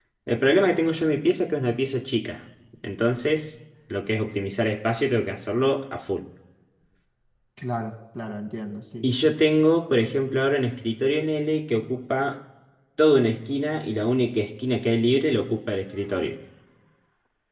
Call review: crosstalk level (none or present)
none